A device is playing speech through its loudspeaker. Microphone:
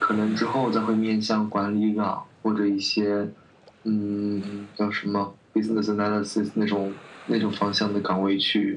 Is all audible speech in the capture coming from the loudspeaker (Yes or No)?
Yes